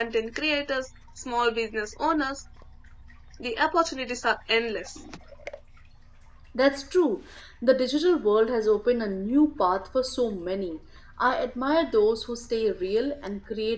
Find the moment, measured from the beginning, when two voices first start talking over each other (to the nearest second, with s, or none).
none